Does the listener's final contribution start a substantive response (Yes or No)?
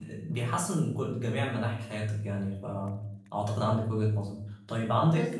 No